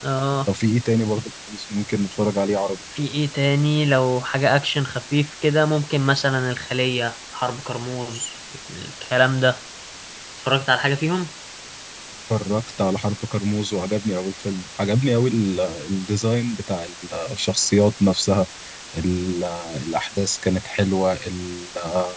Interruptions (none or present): none